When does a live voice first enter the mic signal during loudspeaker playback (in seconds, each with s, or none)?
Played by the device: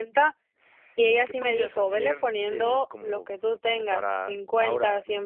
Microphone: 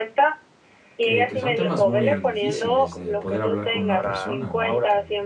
1.0 s